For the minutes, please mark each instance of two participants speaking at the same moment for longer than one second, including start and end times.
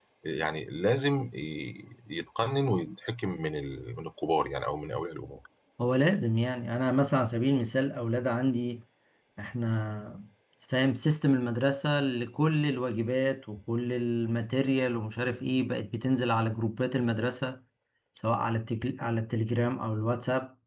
none

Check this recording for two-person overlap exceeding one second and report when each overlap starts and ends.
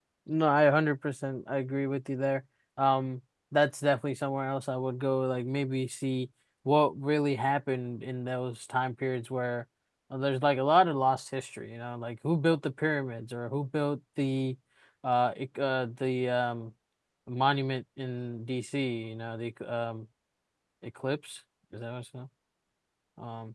none

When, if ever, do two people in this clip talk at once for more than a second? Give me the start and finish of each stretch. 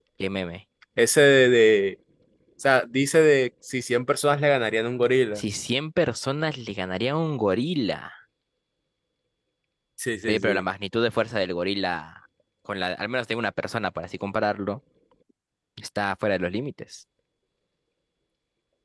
none

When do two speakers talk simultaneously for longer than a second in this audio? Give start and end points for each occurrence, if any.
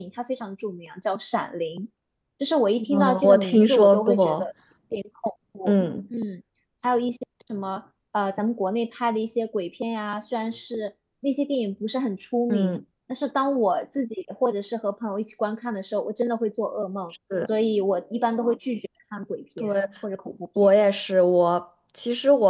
2.9-4.4

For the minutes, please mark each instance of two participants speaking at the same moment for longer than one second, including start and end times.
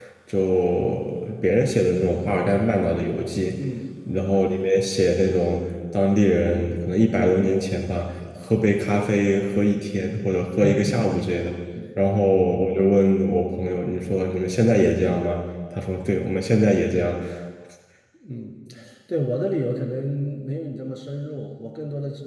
none

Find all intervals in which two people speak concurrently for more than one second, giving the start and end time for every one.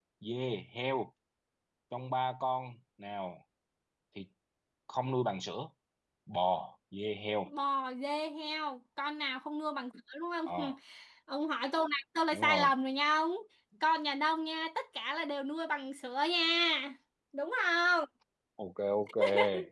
none

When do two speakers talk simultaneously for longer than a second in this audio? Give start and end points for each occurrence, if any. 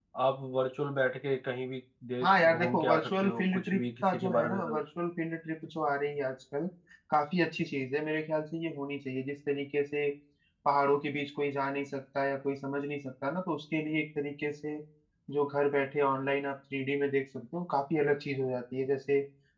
2.2-4.8

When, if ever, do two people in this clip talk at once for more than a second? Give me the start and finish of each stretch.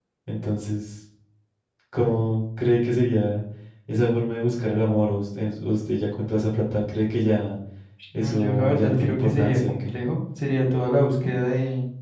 8.2-9.9

